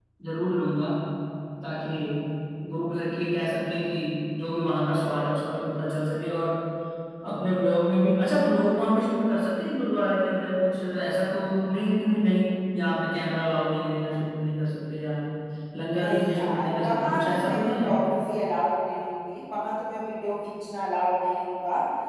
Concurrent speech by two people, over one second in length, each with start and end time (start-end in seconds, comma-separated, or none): 16.0-17.9